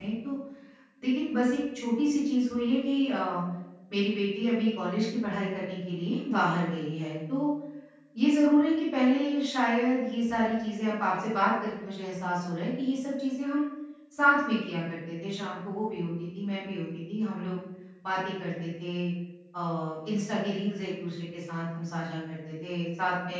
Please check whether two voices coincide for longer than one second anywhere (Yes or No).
No